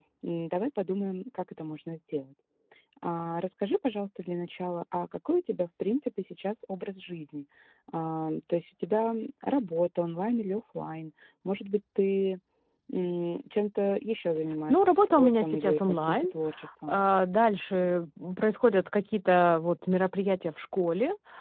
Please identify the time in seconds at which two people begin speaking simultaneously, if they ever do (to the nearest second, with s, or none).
15 s